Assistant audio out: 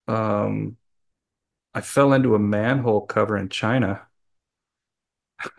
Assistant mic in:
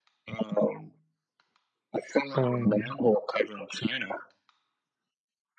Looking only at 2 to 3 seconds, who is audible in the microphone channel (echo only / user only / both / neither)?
both